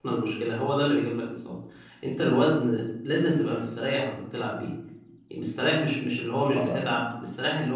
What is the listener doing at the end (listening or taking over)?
listening